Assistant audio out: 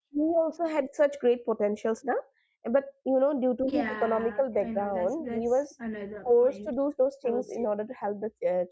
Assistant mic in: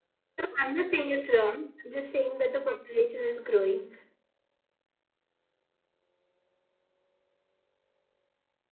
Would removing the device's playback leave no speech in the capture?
No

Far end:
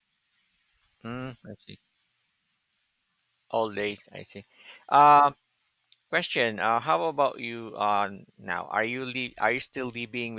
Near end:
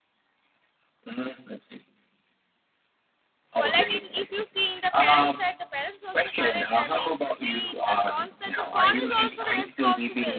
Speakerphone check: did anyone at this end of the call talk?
Yes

